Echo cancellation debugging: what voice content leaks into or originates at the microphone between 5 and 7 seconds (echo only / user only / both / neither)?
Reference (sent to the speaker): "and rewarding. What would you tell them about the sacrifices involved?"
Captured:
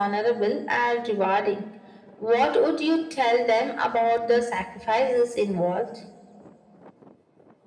echo only